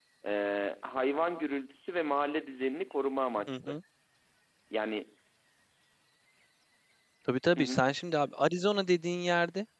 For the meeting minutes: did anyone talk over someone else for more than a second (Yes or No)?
No